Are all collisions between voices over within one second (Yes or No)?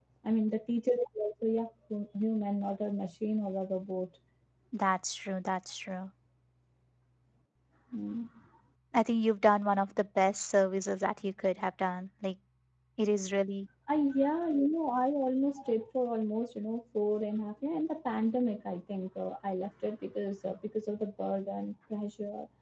Yes